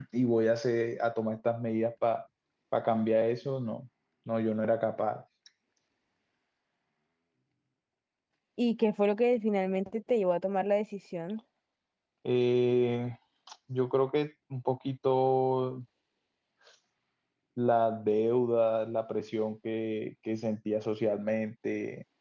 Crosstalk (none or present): none